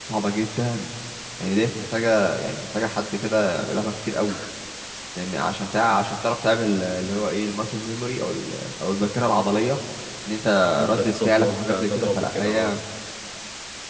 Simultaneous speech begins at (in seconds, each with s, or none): 10.9 s